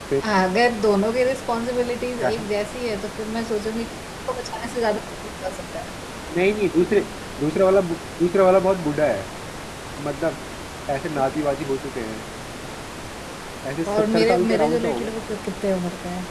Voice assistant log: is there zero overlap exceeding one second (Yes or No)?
No